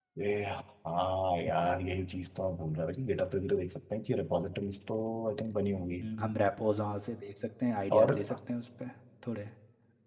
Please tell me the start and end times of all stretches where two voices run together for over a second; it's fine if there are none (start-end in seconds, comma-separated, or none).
none